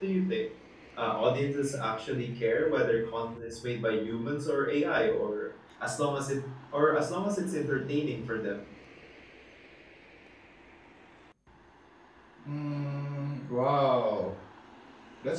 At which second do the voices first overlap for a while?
none

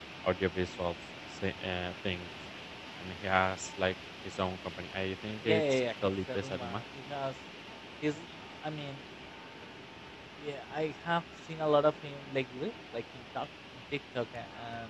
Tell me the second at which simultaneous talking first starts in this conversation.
5.5 s

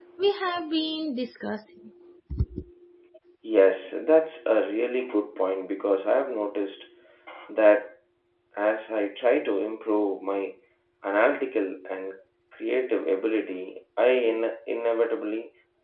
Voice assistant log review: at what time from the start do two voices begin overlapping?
none

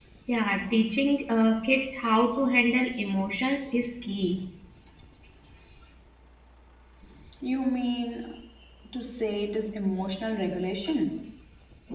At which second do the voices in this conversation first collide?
none

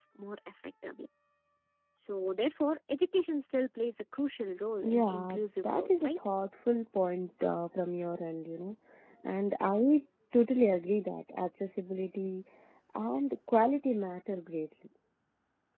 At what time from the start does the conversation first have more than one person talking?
4.8 s

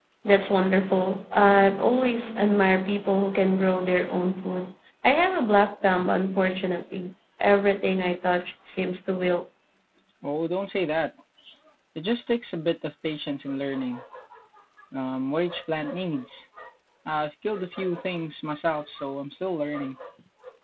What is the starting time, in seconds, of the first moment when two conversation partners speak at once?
none

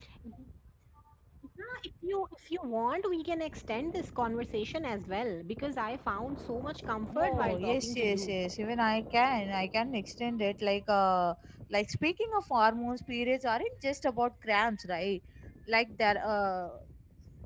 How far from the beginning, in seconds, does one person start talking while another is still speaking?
7.1 s

